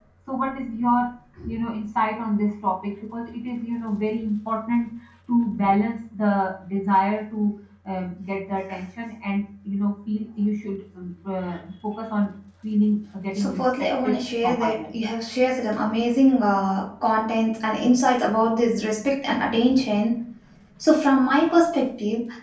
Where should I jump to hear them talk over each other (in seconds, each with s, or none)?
13.4 s